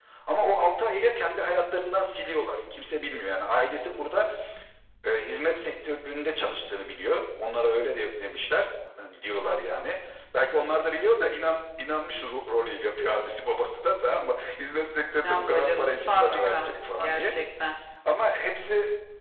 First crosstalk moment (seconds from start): 15.2 s

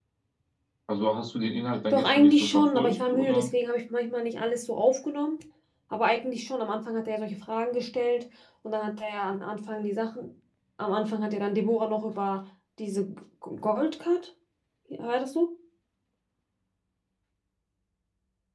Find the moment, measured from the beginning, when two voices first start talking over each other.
1.9 s

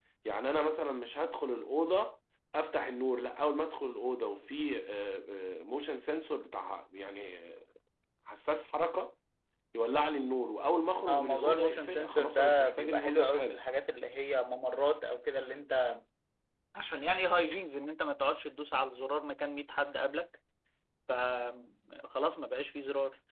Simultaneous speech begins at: 11.1 s

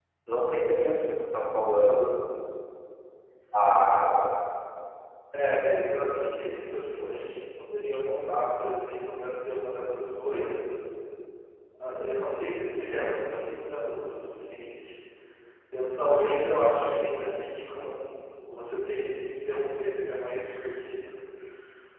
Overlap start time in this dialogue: none

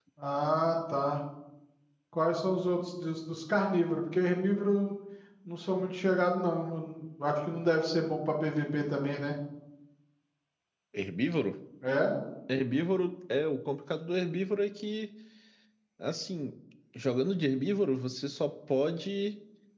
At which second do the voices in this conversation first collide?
none

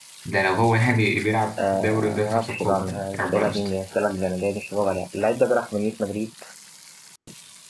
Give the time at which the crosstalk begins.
1.6 s

